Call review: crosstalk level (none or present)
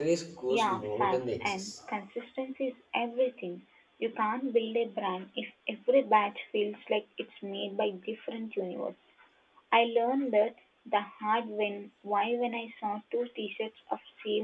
present